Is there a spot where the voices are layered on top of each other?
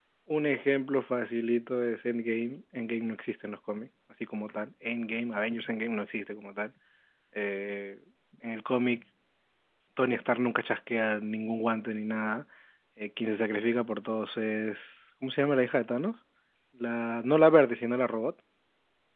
No

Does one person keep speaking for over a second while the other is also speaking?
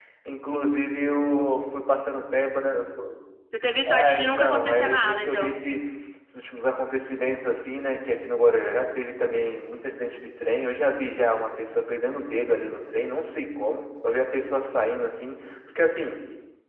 Yes, from 3.9 s

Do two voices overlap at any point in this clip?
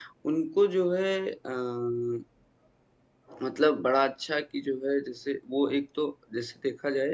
No

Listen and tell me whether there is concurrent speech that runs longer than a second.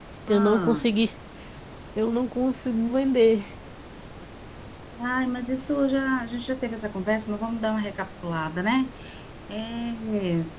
No

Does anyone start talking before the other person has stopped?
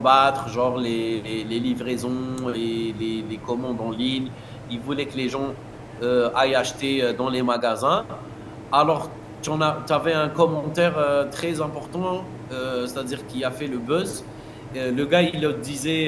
No

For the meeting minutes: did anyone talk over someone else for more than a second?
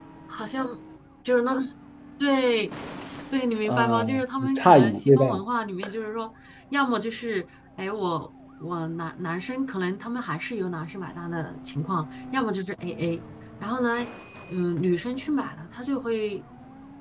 Yes, from 3.6 s

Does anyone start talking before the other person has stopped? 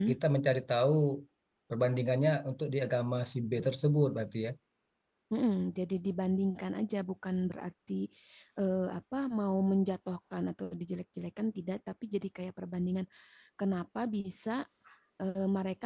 No

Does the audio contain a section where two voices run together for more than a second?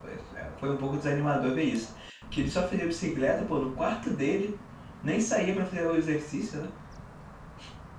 No

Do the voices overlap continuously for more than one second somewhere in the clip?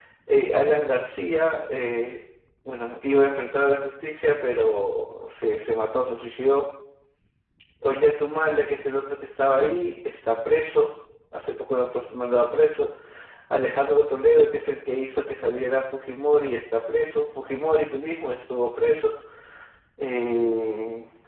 No

